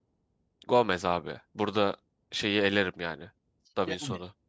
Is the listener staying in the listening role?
Yes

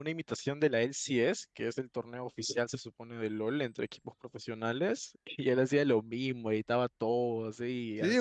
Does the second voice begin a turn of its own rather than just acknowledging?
Yes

